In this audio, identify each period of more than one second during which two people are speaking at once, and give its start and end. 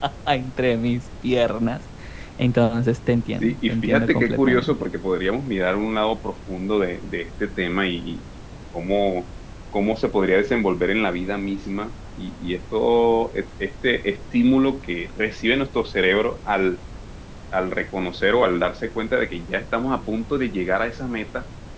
3.4-4.8

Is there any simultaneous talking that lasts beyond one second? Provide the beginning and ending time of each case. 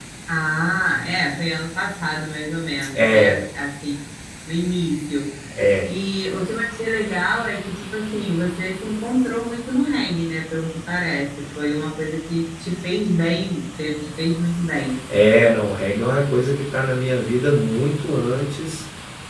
none

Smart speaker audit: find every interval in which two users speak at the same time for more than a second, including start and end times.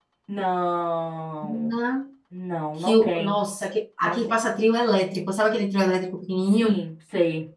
none

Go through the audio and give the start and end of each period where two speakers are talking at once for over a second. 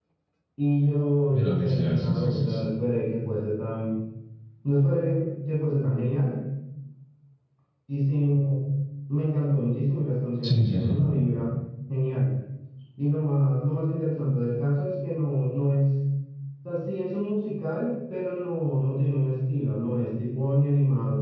1.3-2.6

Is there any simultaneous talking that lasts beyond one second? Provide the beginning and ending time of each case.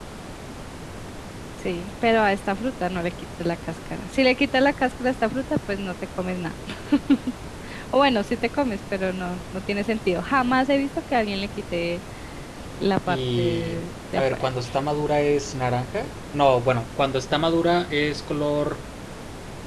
13.1-14.5

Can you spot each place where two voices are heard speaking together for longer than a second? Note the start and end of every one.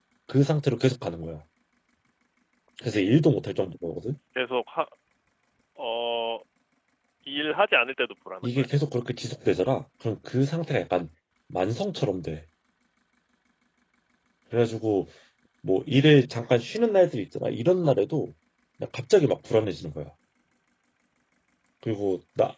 none

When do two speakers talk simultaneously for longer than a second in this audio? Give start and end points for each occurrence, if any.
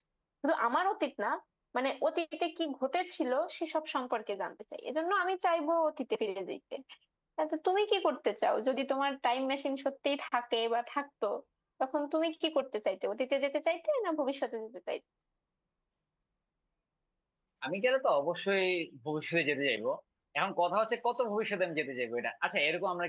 none

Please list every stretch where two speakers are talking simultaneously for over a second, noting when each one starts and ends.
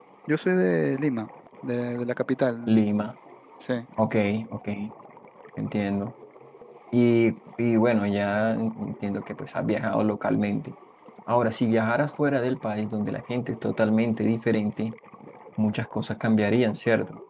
none

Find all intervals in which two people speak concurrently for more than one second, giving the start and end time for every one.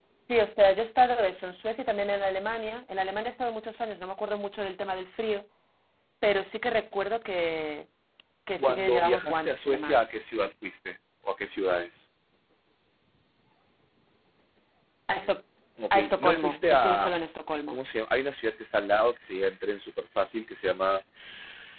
8.6-10.0, 15.9-17.1

